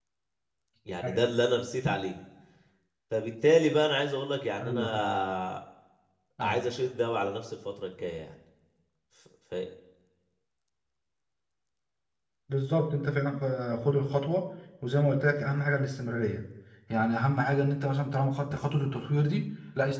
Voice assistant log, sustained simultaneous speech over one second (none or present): none